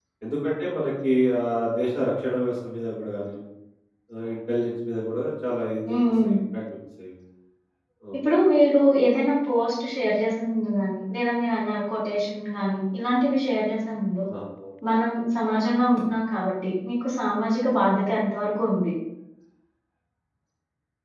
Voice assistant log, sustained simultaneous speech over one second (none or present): none